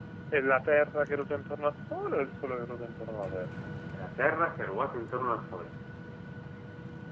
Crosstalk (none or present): none